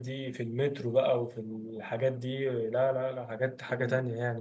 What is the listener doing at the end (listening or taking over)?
taking over